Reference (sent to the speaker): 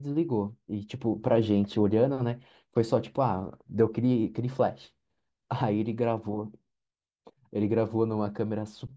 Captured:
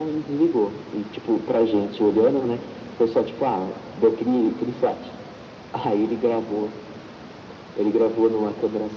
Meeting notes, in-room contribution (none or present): none